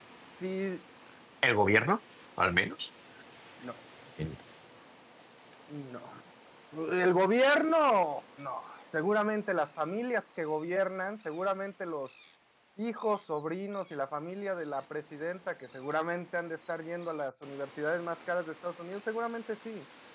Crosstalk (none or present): none